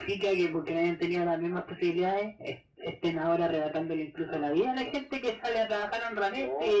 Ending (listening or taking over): listening